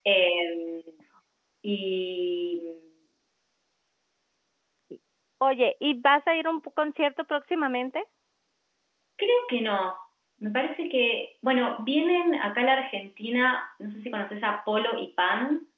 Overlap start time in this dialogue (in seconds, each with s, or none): none